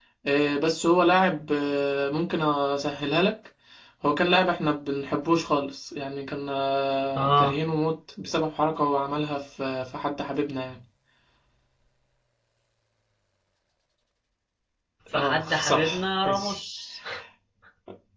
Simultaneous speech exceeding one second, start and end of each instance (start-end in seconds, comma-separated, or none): 15.1-16.6